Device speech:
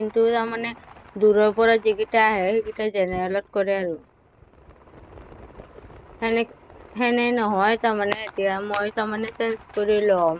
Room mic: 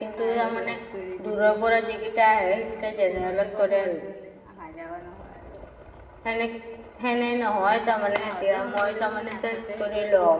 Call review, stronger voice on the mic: echo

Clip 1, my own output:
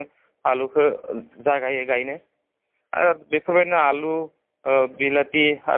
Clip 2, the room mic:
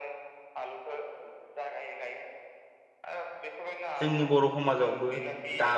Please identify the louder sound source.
user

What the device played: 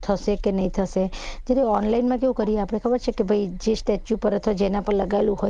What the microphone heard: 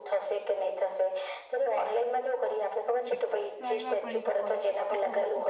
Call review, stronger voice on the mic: echo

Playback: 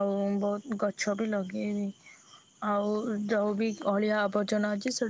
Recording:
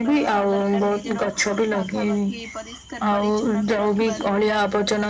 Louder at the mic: echo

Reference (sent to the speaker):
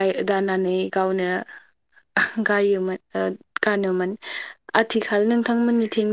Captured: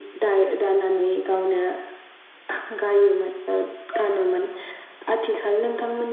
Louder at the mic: echo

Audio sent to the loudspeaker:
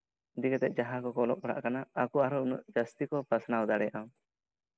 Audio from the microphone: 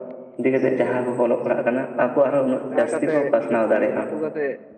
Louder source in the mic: echo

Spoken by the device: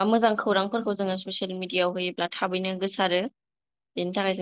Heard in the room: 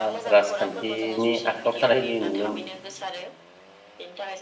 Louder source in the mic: user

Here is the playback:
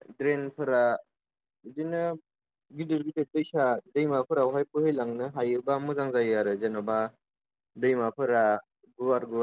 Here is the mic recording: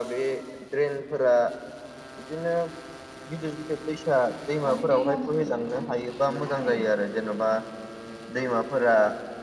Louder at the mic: echo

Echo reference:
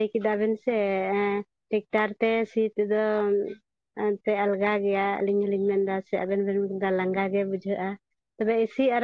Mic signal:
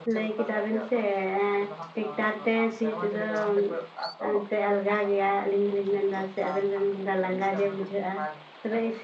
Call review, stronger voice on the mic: echo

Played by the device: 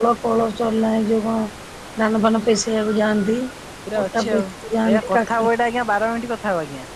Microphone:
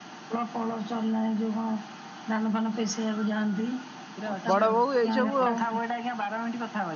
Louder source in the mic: user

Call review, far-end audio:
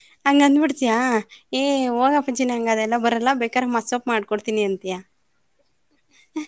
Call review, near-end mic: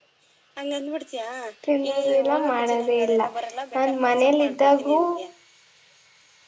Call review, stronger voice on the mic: user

